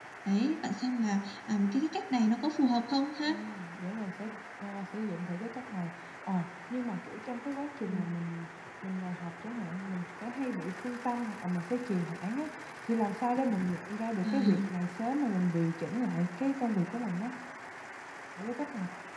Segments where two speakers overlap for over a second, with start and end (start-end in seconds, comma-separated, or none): none